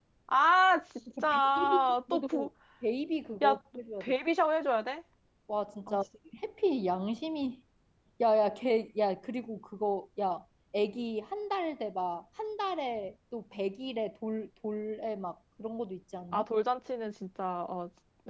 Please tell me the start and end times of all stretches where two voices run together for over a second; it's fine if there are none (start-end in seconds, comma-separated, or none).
1.2-2.5